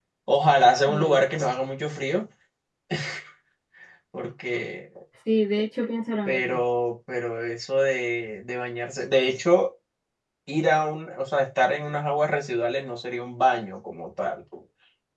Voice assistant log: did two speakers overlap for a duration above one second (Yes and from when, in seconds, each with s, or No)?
No